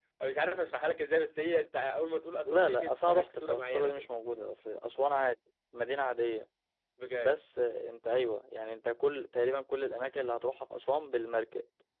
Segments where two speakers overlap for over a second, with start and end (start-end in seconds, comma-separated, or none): 2.4-4.1